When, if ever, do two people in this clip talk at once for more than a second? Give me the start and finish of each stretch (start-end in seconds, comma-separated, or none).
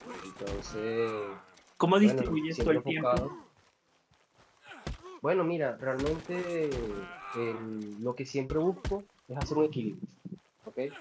2.0-3.3